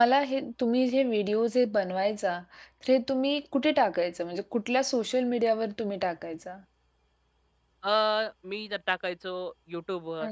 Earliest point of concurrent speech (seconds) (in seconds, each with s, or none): none